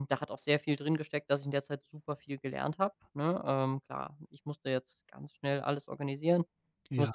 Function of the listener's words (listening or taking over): listening